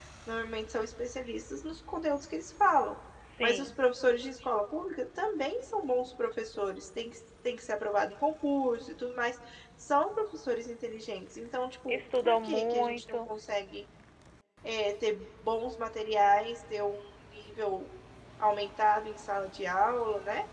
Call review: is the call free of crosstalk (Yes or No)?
No